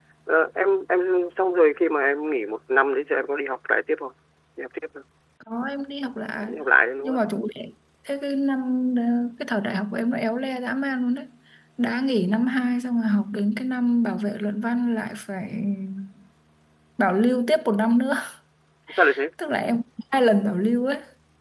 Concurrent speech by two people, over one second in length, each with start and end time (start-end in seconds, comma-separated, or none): none